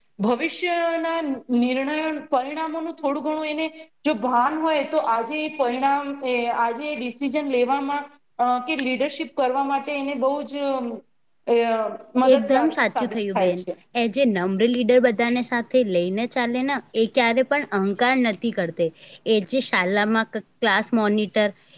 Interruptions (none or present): present